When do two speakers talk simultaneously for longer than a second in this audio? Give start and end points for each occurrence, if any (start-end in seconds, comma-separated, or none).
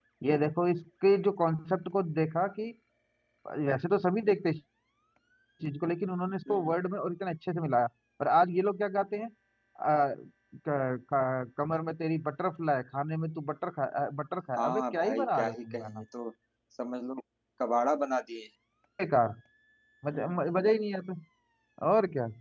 14.6-16.0